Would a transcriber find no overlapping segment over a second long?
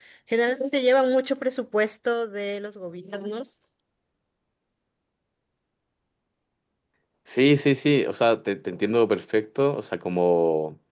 Yes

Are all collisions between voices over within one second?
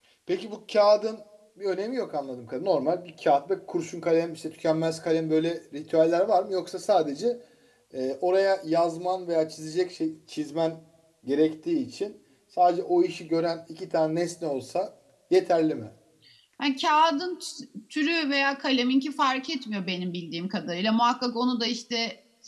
Yes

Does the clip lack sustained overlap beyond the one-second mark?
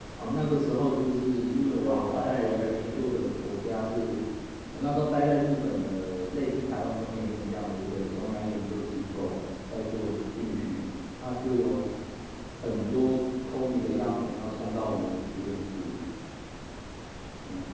No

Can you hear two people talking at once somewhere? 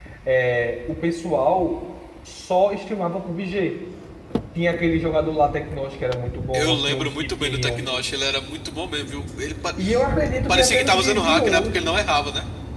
Yes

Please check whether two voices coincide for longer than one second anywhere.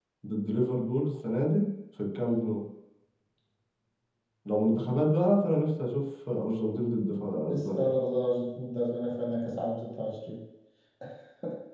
No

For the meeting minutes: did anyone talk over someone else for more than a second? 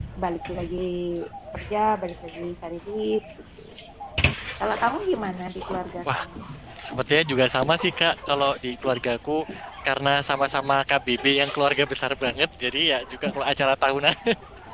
No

